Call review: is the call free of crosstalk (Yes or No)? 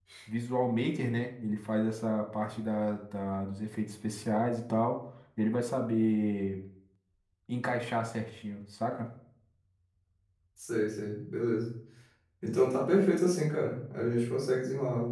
Yes